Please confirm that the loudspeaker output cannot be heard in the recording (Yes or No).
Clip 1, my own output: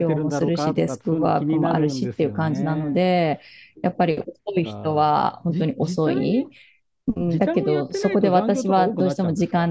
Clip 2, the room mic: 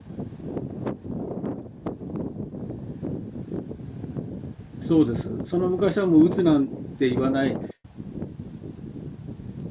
Yes